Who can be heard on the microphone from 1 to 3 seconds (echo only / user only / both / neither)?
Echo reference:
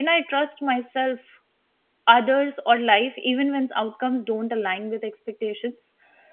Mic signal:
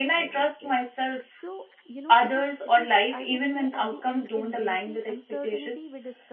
both